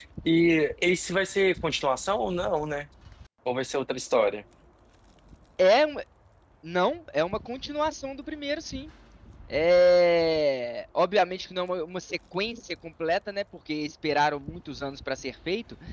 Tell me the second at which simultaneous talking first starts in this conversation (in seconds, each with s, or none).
none